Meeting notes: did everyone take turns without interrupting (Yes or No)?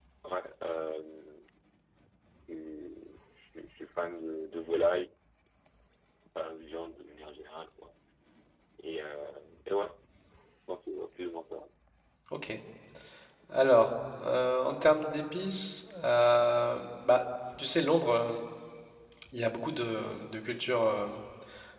Yes